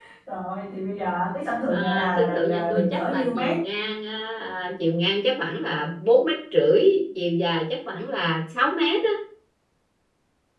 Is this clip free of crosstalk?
No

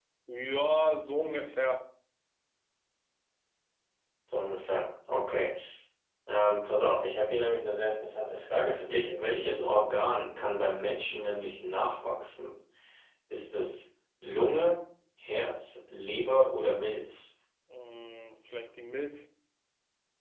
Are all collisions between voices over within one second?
Yes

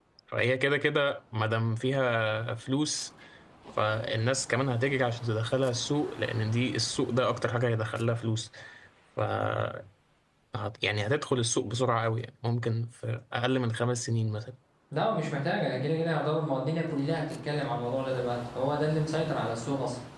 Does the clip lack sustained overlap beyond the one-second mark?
Yes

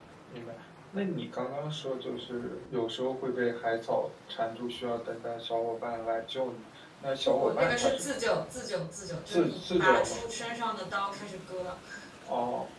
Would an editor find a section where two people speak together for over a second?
Yes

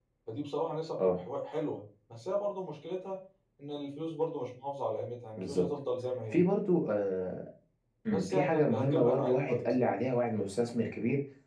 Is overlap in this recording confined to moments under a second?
No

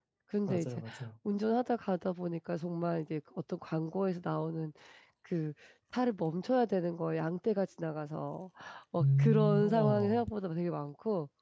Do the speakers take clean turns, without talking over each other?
No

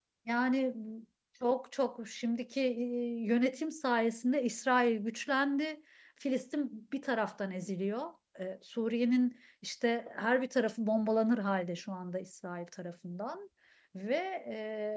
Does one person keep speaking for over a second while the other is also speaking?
No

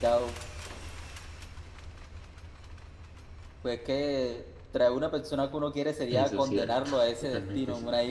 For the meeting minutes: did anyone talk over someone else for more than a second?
Yes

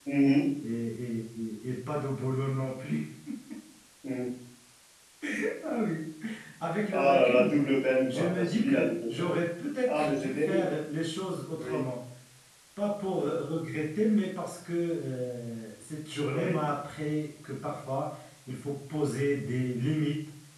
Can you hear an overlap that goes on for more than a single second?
Yes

